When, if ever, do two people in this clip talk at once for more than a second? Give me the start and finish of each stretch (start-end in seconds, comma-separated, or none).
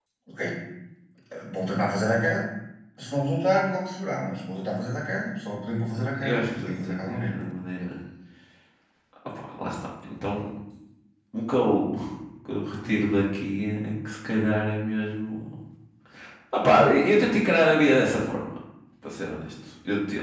6.1-7.3